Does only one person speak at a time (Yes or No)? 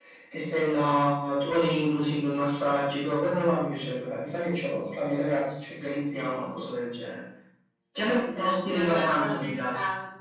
No